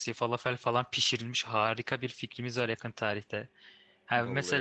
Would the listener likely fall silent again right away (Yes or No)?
Yes